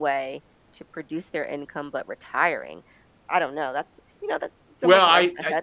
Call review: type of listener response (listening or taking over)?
taking over